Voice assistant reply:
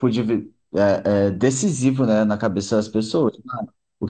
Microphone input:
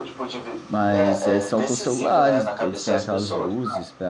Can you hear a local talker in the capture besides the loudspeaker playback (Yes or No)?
Yes